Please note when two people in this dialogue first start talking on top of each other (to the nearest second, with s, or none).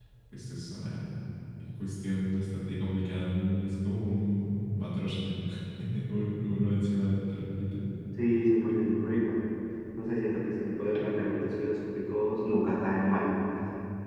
none